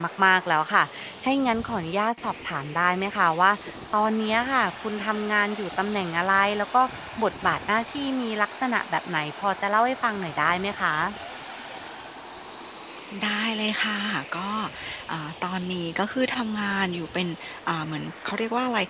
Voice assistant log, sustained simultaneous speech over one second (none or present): none